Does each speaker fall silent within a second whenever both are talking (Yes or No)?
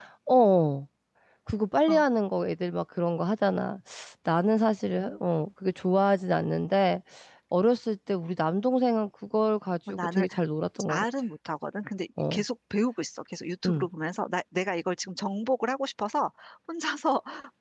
Yes